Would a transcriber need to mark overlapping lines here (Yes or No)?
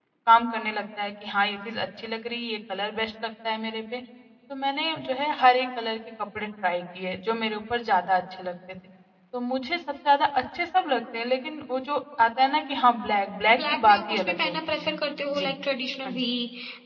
Yes